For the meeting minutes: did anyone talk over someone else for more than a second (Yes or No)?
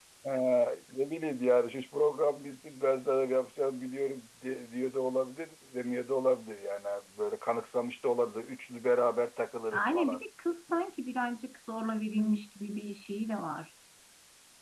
No